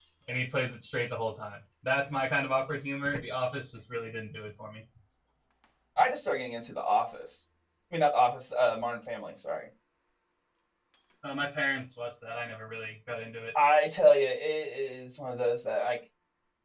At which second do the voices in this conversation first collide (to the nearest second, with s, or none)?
none